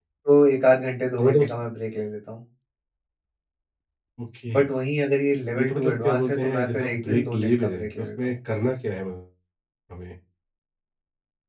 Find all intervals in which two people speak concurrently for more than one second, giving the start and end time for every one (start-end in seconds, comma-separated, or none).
5.5-8.3